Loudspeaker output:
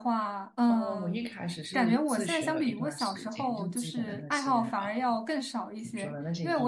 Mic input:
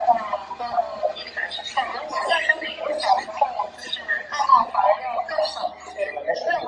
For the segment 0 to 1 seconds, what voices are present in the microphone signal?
echo only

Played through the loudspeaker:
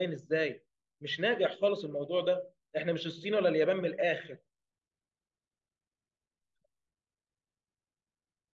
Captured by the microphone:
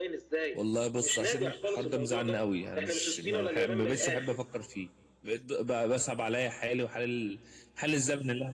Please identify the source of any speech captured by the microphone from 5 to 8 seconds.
user only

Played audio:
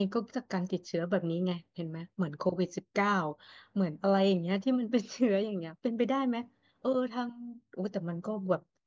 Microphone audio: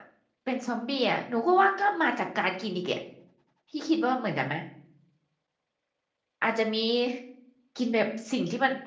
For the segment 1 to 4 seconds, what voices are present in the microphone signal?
user only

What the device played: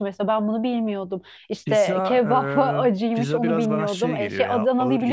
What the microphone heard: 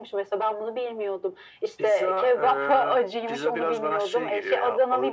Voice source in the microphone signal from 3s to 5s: echo only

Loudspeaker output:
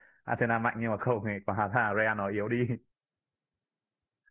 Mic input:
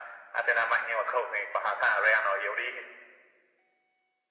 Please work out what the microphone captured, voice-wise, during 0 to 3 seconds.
echo only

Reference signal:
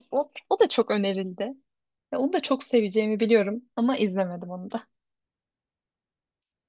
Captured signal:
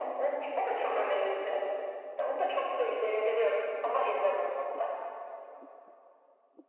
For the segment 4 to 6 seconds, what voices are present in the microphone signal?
echo only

